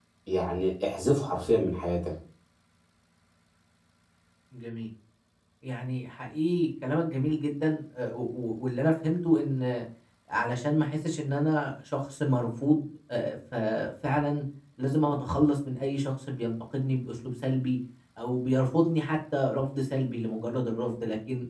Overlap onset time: none

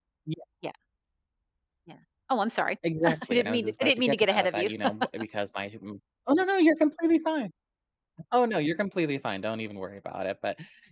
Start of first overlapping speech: 2.8 s

